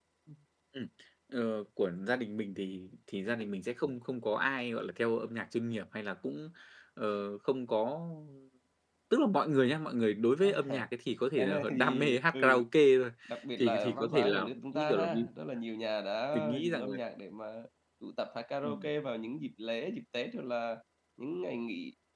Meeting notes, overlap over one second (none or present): present